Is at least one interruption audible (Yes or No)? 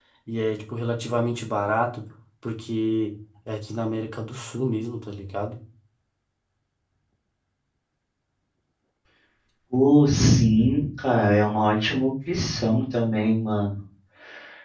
No